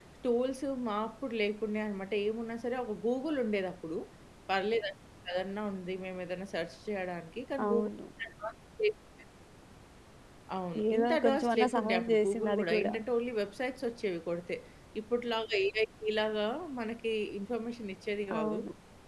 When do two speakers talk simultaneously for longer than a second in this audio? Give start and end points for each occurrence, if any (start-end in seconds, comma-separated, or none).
10.9-12.9